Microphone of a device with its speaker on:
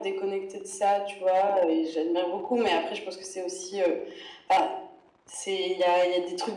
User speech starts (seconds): none

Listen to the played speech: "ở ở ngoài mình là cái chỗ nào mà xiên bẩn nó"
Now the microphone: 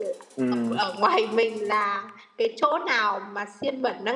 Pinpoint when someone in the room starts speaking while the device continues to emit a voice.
0.4 s

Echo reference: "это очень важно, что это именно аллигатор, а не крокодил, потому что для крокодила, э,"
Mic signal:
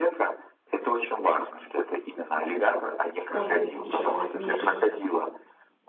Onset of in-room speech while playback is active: 3.3 s

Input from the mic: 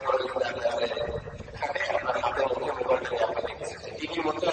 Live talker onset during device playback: none

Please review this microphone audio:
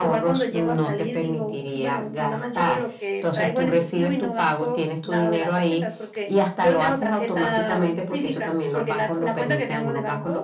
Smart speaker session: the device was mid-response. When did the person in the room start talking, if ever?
none

